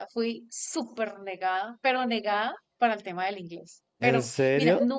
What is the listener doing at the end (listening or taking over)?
listening